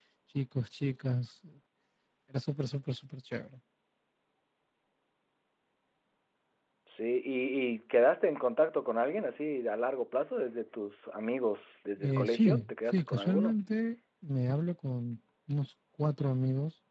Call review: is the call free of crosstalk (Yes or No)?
No